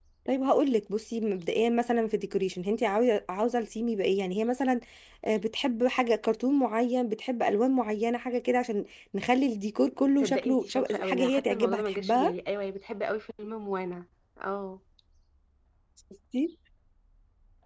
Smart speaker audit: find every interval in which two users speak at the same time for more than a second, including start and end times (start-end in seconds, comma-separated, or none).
10.2-12.3